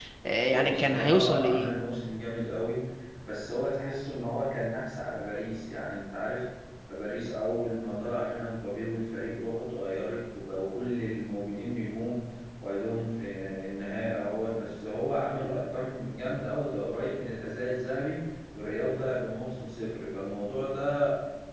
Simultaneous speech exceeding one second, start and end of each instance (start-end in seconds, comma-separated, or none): 0.5-1.7